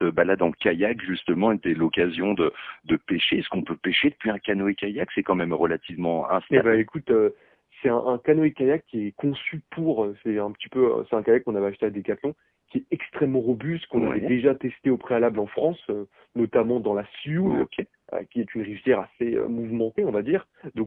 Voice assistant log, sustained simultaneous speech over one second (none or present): none